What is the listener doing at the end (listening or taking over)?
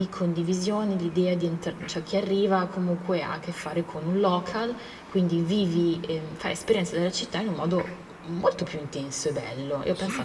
taking over